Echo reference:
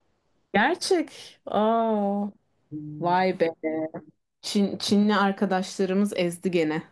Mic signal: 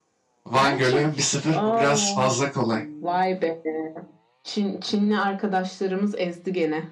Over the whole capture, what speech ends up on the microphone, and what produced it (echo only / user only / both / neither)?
both